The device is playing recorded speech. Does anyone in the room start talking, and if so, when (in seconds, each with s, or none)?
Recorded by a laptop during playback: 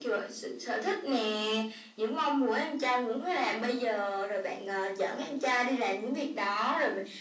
none